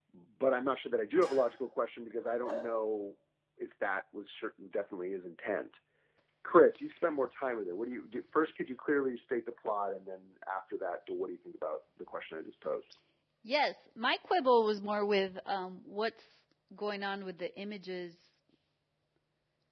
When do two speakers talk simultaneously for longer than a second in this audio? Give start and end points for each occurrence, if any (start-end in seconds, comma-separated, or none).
none